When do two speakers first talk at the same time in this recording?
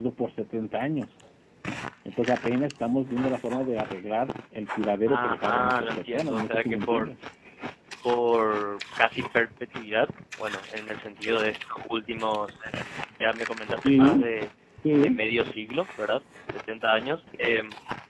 5.1 s

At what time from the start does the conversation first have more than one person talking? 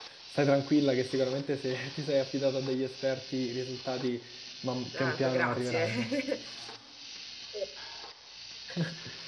4.9 s

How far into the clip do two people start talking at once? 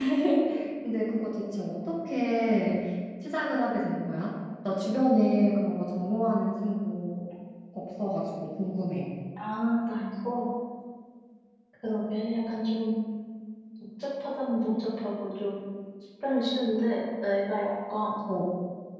none

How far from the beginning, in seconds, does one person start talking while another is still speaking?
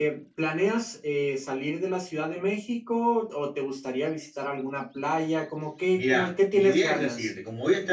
6.0 s

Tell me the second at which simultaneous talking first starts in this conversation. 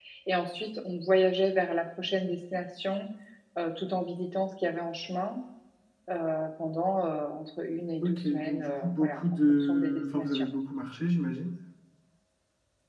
8.0 s

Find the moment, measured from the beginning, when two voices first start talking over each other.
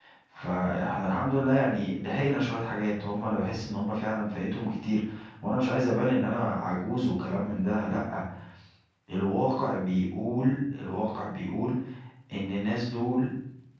none

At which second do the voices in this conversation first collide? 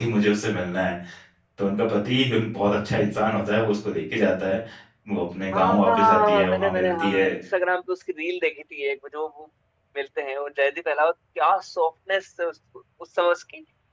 5.5 s

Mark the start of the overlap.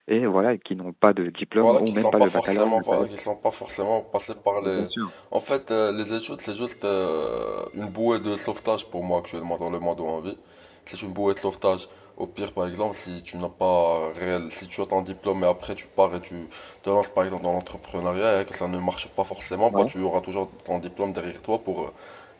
1.6 s

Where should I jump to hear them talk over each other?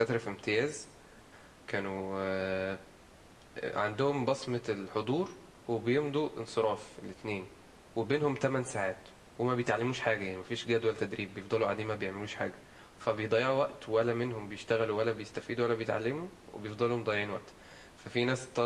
none

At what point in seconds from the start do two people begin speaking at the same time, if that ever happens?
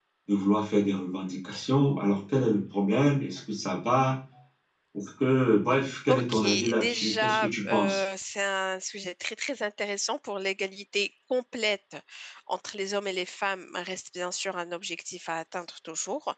6.1 s

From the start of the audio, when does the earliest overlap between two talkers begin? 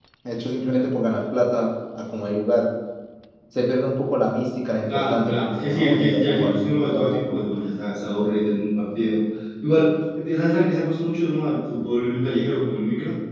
4.9 s

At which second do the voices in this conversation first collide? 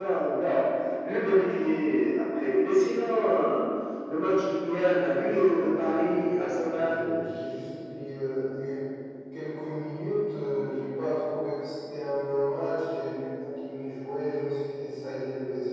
4.9 s

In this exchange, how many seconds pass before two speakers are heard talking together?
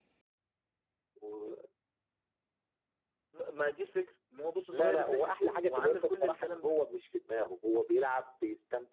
4.7 s

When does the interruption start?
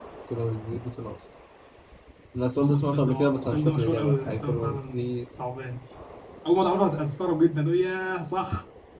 2.6 s

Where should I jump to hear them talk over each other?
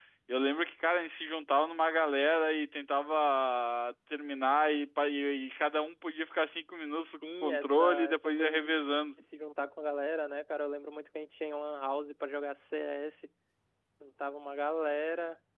7.2 s

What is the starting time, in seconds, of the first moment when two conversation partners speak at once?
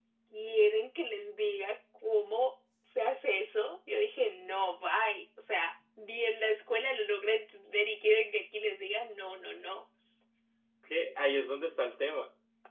none

